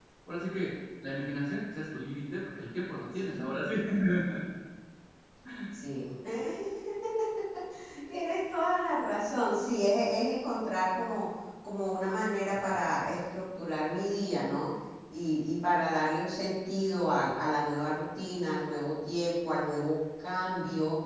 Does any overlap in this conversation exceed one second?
No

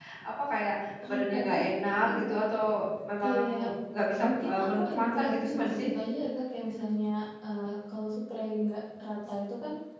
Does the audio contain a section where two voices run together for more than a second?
Yes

